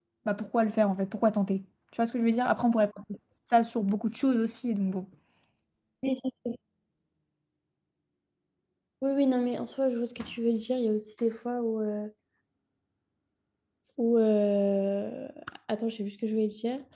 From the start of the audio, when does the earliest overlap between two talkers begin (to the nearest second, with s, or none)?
none